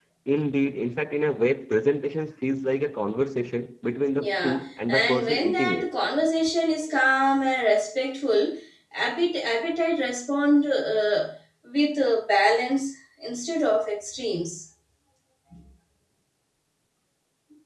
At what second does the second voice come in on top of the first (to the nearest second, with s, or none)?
4 s